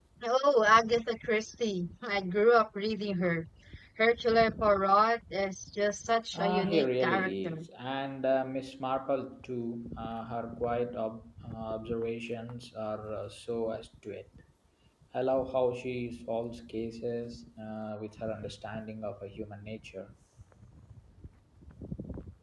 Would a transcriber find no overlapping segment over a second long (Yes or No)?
No